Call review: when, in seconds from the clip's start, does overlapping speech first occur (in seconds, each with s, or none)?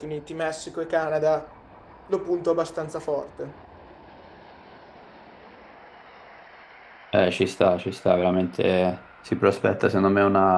none